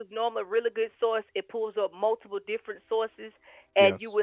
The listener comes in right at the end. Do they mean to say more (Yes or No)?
No